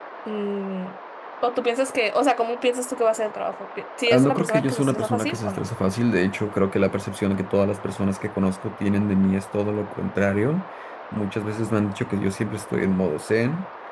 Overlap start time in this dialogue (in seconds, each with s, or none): 4.1 s